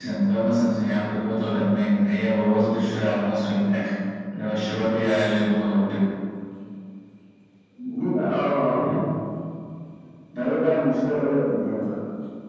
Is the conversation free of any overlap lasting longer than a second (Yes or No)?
Yes